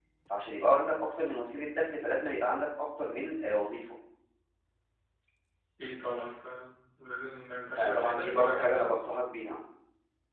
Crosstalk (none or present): present